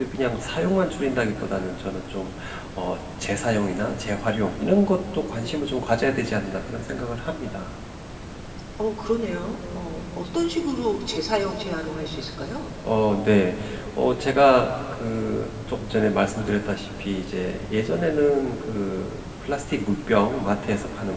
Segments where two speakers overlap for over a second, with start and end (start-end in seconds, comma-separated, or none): none